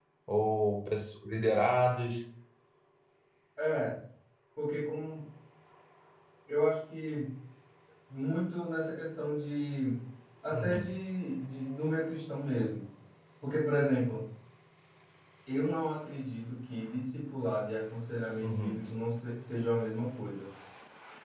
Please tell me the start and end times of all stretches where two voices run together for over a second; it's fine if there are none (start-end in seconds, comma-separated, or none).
none